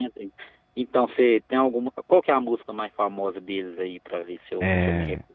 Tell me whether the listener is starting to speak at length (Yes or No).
Yes